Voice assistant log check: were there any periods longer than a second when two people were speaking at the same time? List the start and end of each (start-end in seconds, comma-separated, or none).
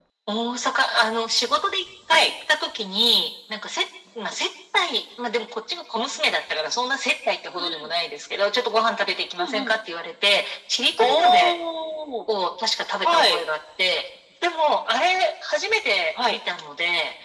none